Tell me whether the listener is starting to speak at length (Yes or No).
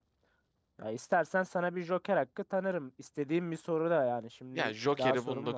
Yes